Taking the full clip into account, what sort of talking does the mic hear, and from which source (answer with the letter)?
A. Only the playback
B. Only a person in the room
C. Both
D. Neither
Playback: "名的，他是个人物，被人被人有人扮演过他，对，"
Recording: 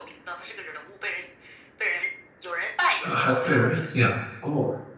C